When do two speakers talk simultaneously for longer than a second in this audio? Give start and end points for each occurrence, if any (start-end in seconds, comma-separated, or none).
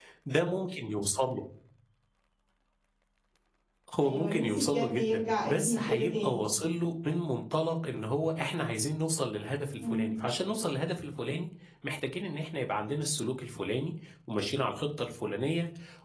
4.0-6.5